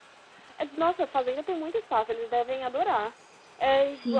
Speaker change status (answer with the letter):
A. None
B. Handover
B